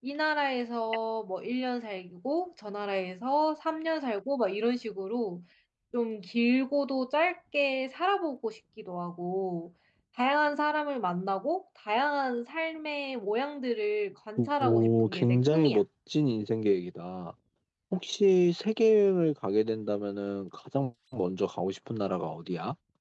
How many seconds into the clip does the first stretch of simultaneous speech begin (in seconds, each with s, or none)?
14.4 s